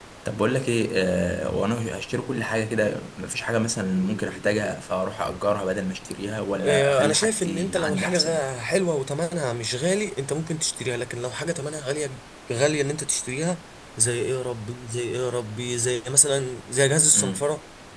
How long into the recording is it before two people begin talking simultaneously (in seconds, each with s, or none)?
6.6 s